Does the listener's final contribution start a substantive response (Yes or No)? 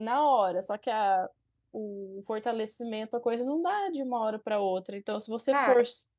No